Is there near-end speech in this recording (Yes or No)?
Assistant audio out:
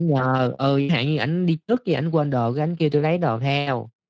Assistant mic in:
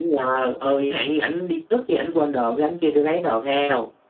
No